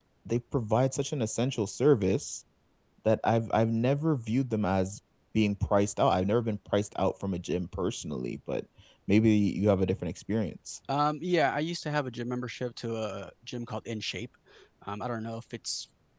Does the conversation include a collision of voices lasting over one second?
No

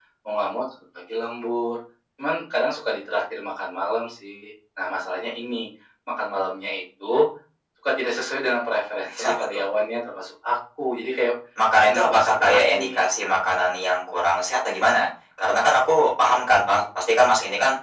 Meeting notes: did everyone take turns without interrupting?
No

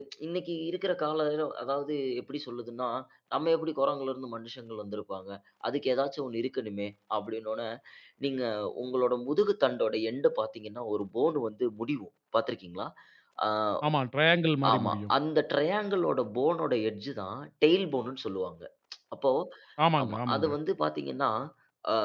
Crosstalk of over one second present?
No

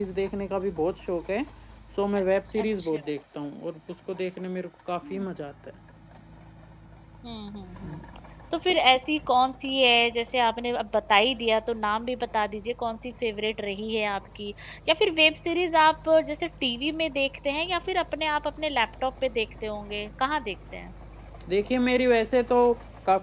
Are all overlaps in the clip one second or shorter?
Yes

